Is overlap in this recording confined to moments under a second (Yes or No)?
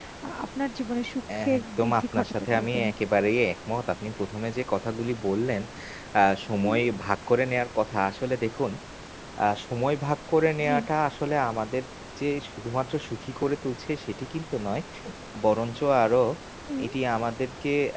No